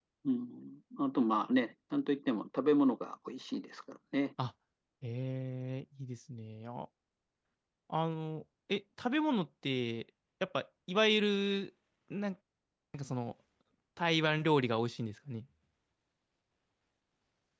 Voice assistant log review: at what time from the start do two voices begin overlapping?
none

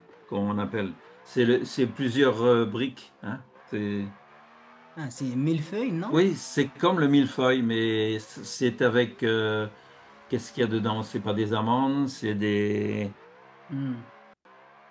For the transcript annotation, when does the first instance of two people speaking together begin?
none

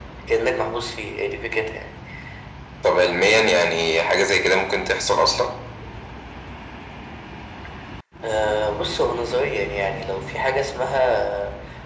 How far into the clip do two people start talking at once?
none

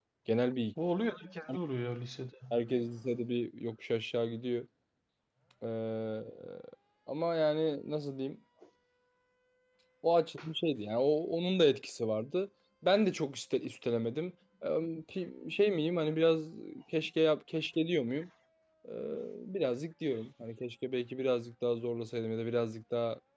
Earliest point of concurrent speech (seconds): none

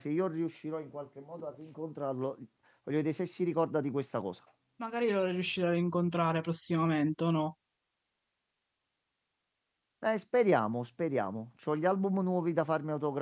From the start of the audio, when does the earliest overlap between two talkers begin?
none

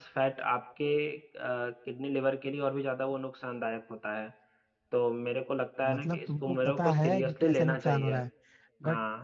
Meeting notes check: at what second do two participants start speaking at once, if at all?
5.9 s

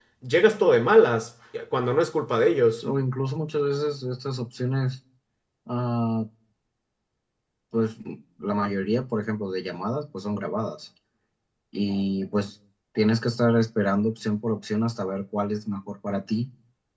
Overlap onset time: none

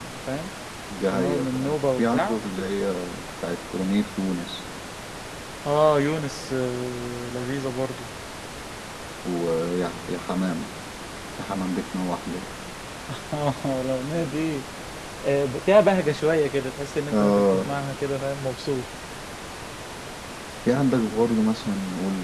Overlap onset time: 1.1 s

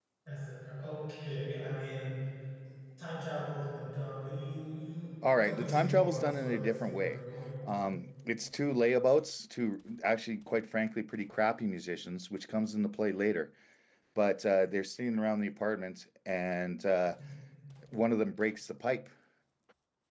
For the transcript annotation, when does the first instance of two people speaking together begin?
5.2 s

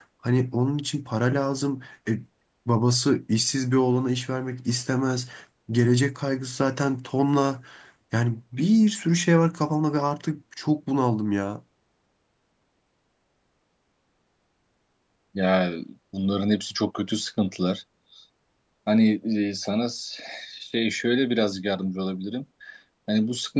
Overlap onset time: none

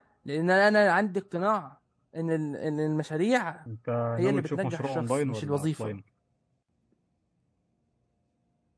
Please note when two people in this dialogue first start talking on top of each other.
4.2 s

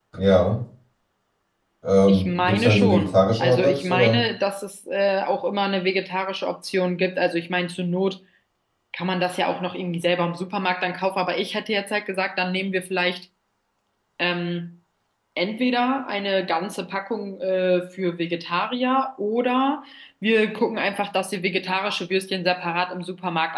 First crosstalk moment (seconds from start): 2.1 s

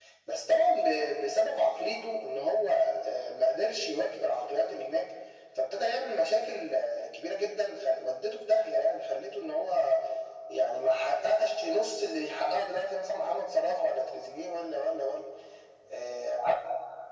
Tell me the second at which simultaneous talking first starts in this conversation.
none

